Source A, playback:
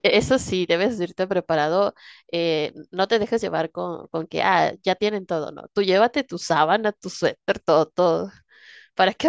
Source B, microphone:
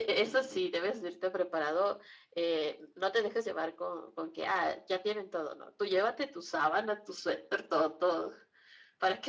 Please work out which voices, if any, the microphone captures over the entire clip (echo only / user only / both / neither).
echo only